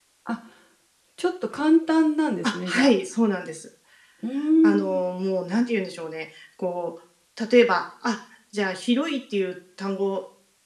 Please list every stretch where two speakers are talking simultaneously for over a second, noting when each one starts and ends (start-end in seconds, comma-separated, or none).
none